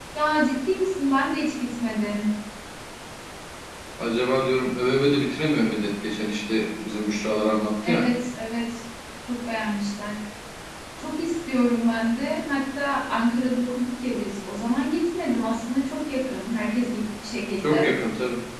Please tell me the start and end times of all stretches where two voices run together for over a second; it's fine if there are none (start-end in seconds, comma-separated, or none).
none